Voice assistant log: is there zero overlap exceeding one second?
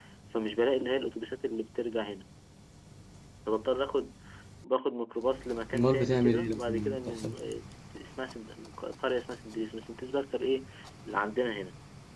No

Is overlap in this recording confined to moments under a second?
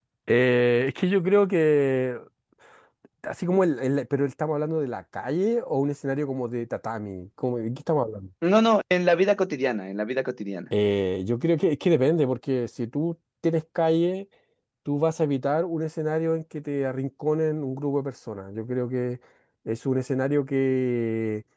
Yes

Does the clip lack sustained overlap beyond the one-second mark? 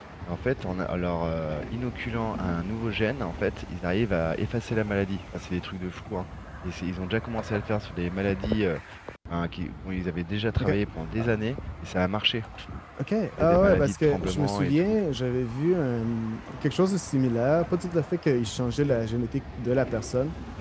No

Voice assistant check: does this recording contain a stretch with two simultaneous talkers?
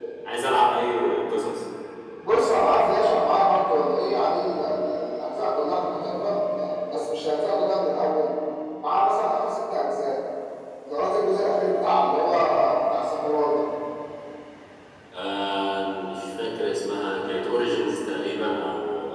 No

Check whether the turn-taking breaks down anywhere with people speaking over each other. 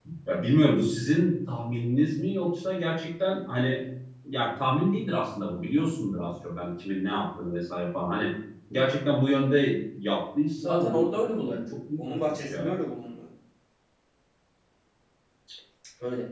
Yes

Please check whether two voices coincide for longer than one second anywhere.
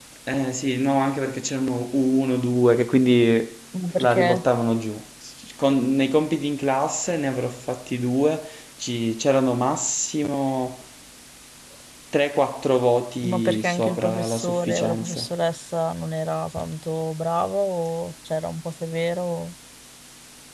Yes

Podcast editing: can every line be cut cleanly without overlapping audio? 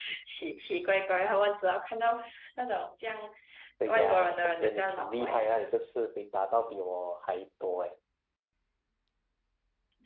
No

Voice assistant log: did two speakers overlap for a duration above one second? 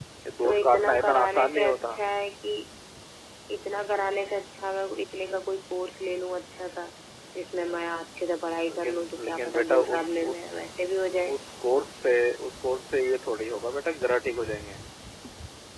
Yes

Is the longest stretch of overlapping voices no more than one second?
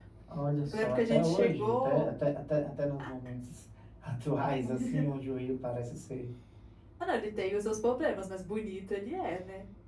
No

